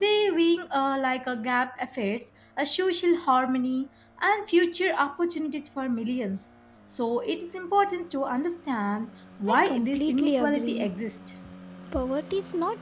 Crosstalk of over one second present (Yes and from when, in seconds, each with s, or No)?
Yes, from 9.5 s